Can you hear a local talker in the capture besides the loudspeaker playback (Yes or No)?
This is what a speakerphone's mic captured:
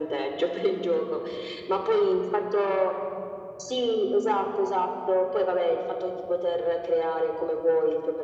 No